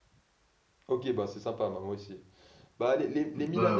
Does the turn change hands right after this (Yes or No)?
No